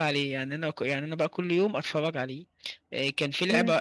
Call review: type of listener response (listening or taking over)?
listening